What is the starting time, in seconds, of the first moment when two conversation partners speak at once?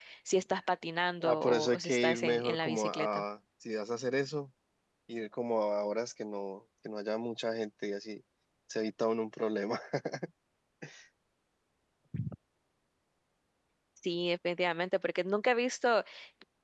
1.2 s

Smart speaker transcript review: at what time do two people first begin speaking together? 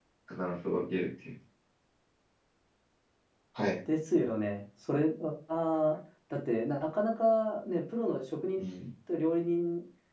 none

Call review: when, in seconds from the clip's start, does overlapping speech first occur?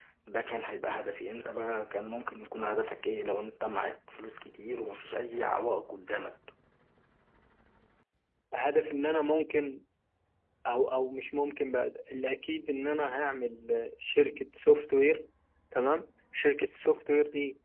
none

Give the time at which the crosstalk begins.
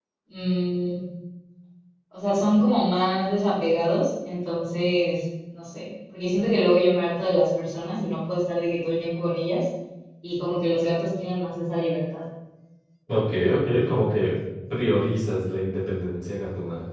none

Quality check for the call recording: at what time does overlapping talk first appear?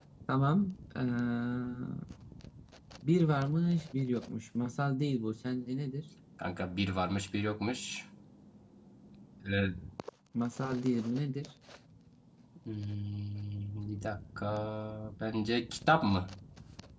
none

